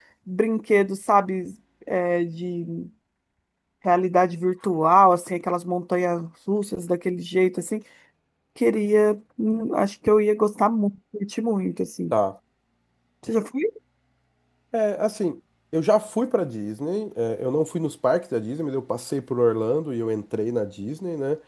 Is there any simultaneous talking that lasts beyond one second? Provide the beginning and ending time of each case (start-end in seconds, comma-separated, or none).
none